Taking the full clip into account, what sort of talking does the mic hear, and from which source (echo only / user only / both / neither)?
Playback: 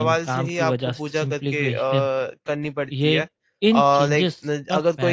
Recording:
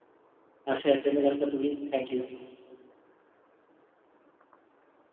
user only